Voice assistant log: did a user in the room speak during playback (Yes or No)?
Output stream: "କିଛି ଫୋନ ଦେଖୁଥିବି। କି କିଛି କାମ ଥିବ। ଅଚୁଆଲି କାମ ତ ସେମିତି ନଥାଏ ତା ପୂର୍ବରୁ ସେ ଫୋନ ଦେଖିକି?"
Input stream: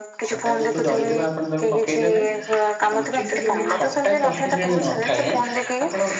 Yes